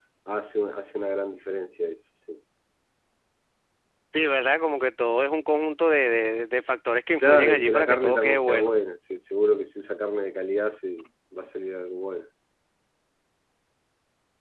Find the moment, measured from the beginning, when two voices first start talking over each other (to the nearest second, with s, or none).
7 s